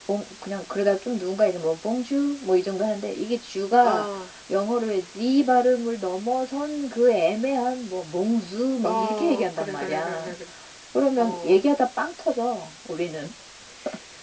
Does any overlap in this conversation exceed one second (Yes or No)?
Yes